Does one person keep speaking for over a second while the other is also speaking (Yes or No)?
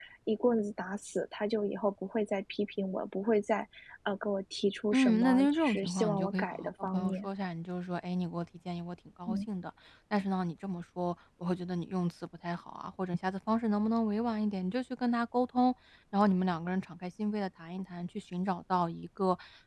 Yes